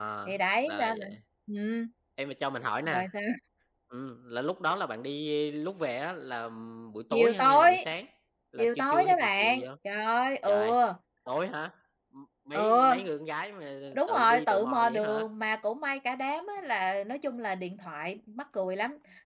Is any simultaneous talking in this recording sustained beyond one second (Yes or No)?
Yes